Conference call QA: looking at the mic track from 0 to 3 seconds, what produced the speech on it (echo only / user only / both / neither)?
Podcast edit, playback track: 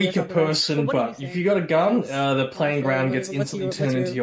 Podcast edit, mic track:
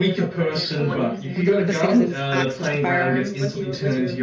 both